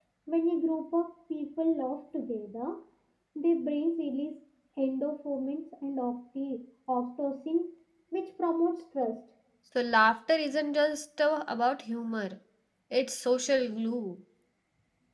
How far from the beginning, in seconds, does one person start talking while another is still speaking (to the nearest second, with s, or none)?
none